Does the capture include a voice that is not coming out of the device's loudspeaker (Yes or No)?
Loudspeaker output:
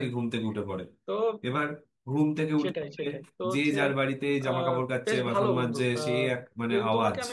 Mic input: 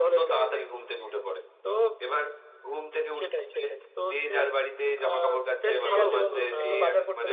Yes